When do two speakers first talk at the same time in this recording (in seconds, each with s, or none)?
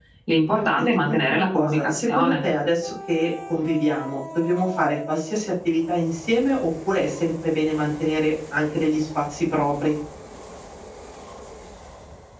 0.5 s